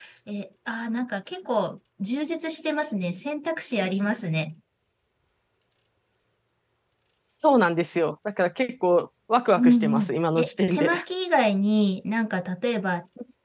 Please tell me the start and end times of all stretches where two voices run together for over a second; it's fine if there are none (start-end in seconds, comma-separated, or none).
9.6-10.9